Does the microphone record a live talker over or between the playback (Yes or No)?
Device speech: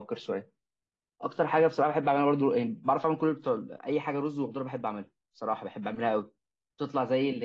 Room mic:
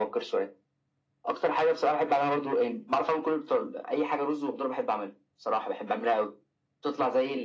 No